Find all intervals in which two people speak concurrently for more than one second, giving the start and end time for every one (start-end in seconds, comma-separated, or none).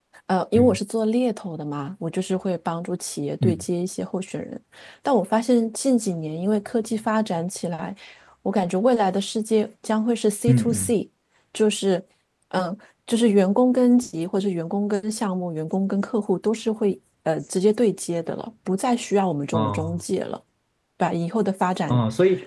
none